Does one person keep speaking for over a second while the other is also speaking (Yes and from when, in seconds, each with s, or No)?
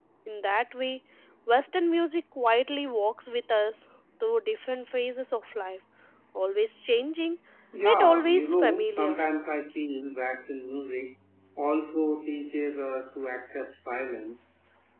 Yes, from 7.8 s